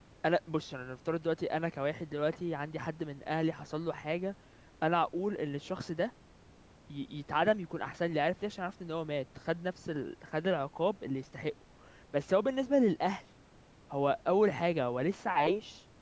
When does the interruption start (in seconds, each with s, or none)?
none